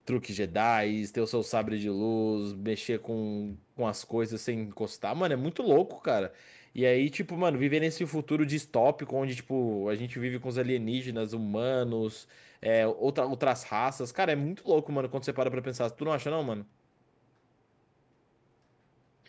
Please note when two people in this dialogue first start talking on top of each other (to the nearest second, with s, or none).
none